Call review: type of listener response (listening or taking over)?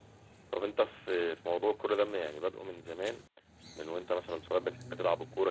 listening